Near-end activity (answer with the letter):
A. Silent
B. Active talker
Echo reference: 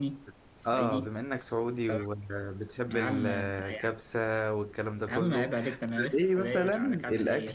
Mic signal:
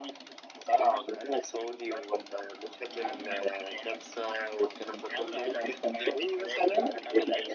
A